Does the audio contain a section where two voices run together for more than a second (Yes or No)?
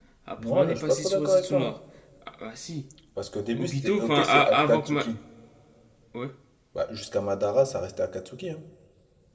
Yes